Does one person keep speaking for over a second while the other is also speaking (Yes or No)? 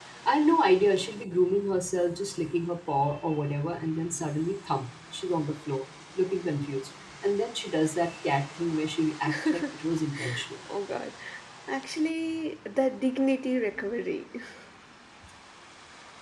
No